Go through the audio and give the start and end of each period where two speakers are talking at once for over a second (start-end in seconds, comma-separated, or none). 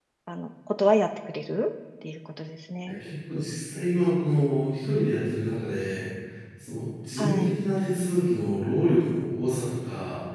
none